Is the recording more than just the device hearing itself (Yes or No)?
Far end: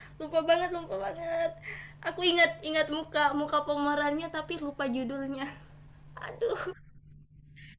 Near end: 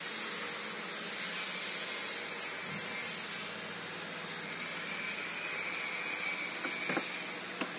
No